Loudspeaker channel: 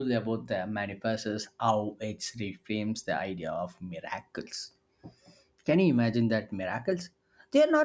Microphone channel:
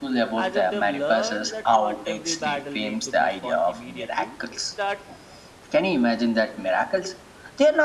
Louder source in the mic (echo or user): echo